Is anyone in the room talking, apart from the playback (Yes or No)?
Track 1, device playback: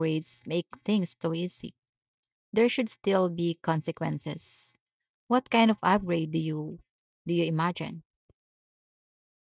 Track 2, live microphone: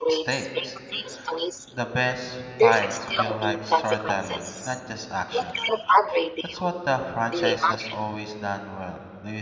Yes